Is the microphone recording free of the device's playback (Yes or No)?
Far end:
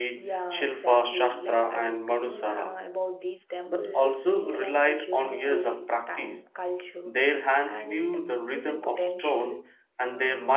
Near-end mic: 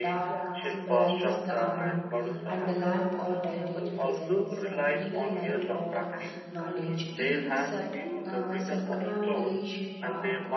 No